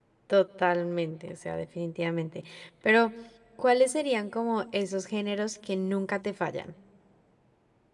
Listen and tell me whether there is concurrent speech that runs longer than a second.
No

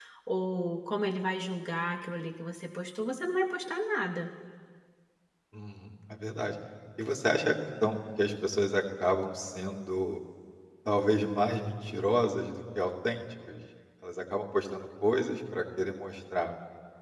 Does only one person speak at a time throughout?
Yes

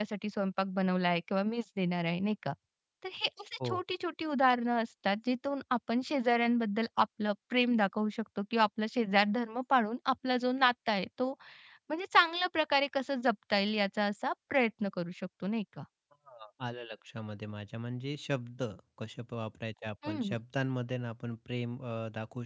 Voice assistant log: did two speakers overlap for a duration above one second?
No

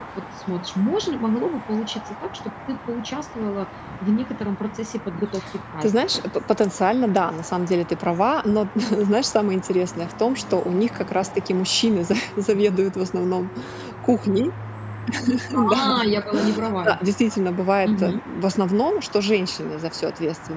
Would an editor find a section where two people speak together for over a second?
No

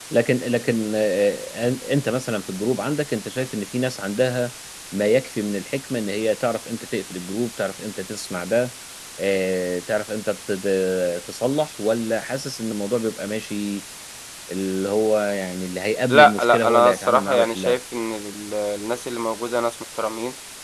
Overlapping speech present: Yes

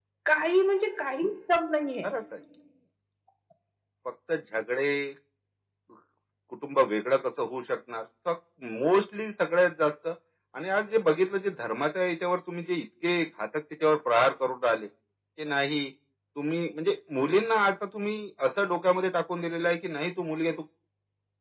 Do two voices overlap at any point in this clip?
No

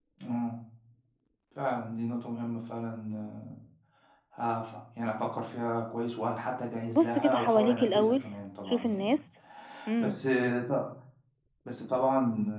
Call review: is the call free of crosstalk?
No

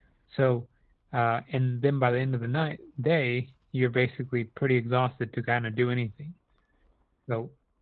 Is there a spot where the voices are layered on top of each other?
No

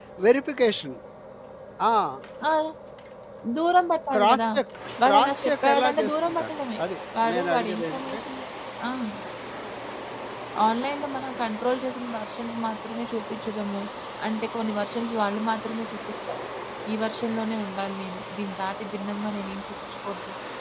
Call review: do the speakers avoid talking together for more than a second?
No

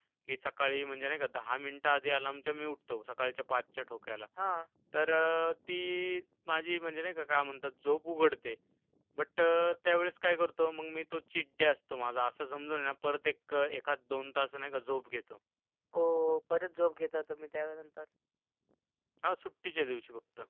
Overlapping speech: No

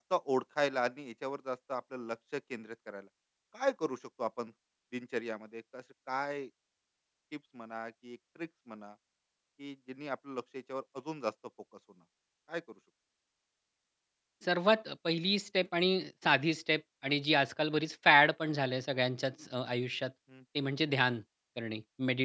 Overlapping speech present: No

